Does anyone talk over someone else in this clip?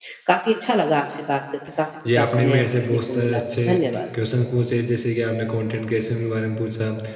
Yes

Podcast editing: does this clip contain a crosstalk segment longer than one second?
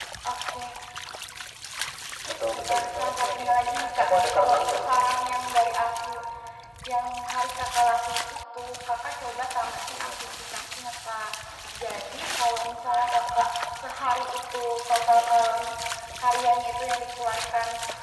Yes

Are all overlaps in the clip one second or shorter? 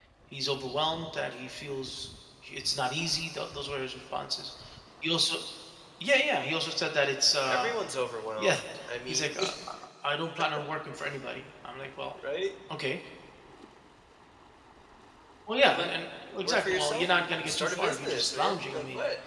No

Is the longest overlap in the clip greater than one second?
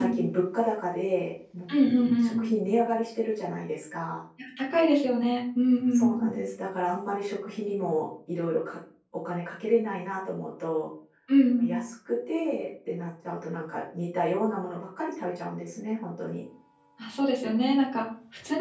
No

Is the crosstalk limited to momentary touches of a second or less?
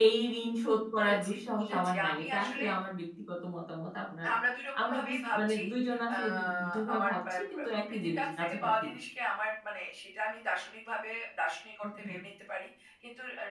No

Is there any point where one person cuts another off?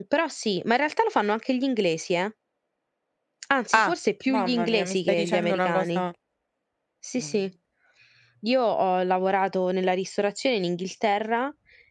Yes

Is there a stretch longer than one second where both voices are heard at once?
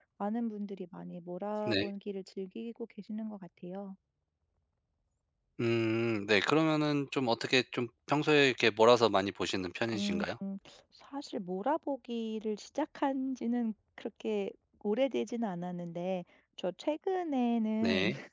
No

